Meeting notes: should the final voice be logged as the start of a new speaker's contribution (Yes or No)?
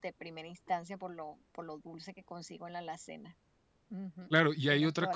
Yes